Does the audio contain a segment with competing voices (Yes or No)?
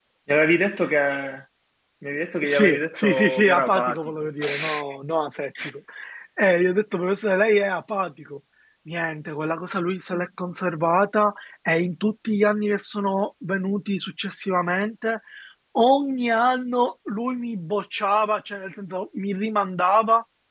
Yes